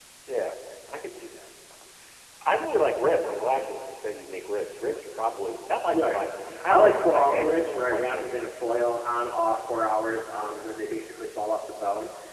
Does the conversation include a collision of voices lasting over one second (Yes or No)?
Yes